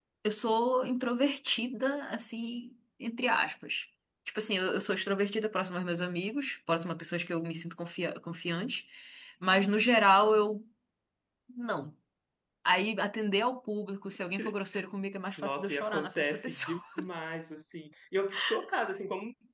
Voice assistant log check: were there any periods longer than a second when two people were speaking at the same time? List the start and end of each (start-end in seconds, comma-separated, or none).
15.4-16.8